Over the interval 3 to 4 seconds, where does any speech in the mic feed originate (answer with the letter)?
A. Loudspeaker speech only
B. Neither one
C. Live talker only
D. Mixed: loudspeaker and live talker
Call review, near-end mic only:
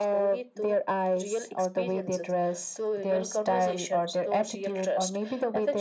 A